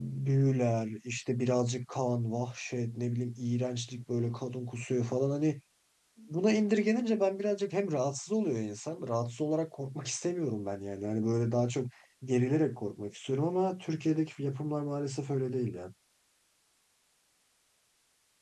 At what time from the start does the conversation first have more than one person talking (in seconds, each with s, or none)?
none